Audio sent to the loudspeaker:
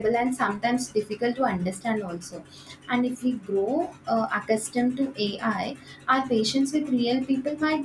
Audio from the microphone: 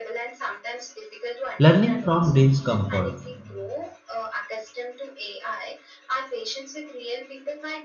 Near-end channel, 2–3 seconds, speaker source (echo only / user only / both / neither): both